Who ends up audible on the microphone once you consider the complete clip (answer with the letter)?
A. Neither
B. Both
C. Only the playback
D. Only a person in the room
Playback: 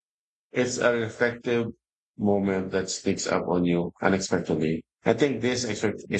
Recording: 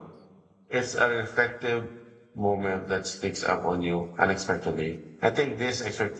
C